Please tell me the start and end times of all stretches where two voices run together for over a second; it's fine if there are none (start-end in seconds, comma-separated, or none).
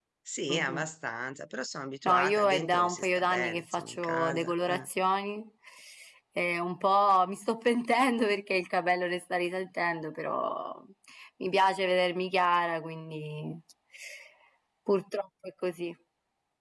2.0-4.9